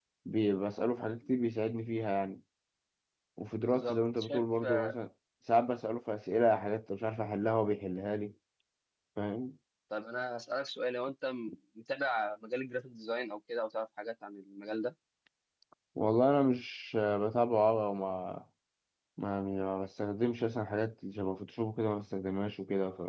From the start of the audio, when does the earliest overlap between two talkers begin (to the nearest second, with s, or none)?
4 s